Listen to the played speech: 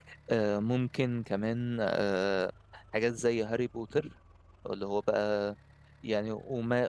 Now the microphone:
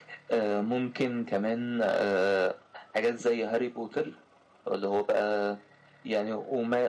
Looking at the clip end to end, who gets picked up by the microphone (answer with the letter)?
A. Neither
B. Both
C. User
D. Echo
D